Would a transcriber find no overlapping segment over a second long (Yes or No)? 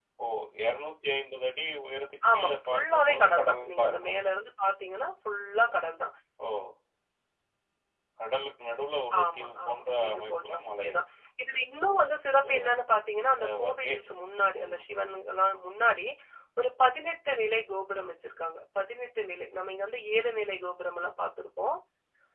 No